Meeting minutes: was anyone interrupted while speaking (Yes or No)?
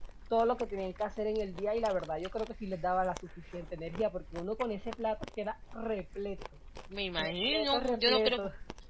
Yes